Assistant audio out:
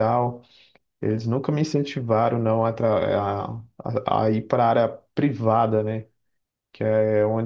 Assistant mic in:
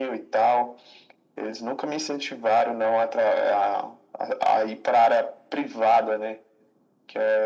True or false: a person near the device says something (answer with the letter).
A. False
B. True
A